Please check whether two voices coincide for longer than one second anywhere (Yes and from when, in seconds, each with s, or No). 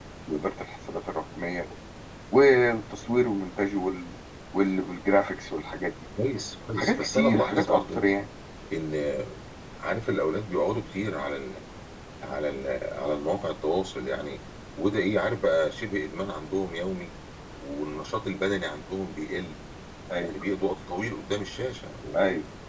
Yes, from 6.8 s